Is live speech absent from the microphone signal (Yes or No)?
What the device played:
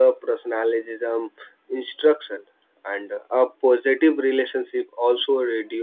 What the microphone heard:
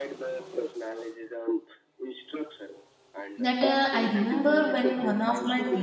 No